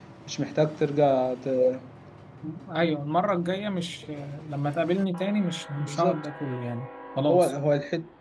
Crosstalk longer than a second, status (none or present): none